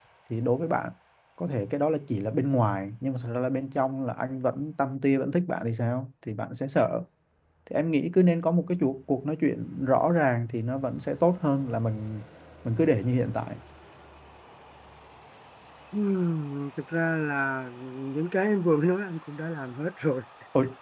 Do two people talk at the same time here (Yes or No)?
No